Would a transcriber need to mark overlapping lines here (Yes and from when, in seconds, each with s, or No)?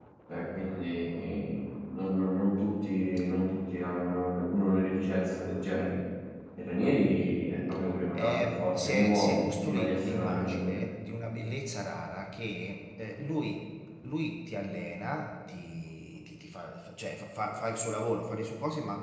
Yes, from 8.1 s